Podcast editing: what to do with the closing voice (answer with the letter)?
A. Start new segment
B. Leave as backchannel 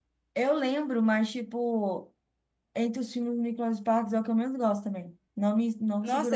A